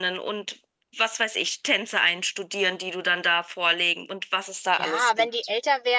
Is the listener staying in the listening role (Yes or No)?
No